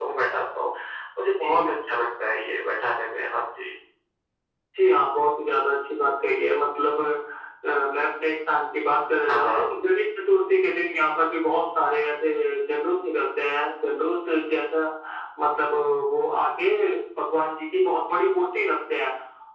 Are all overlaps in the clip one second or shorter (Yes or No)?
Yes